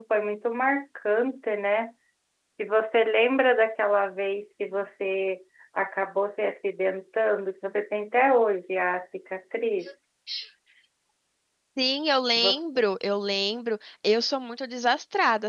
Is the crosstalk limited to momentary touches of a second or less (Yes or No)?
Yes